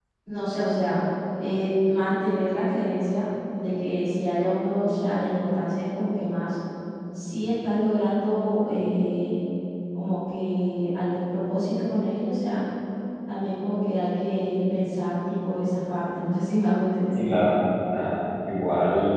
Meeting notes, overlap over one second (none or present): none